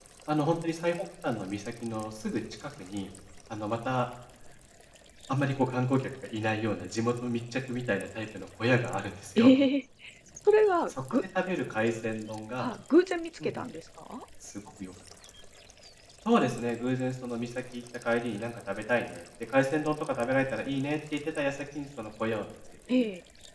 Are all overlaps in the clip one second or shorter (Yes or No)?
Yes